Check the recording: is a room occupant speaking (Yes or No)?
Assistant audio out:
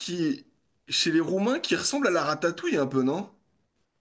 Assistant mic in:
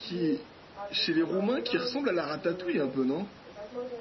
Yes